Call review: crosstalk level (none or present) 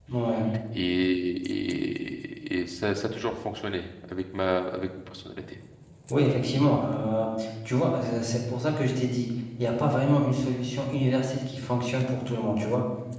none